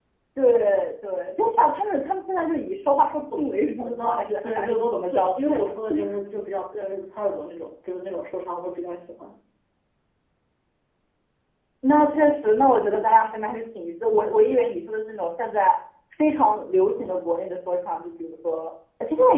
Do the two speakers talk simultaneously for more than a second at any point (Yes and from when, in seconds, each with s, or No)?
Yes, from 3.8 s